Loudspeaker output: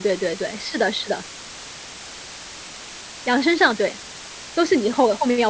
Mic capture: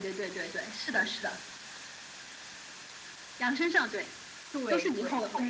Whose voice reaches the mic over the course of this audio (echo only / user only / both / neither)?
both